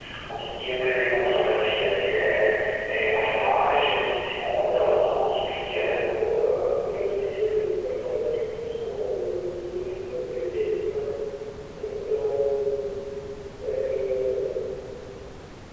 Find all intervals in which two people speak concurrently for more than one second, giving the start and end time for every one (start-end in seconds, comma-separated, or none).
none